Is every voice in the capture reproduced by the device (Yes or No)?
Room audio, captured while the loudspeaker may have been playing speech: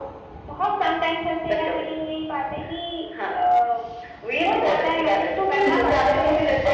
No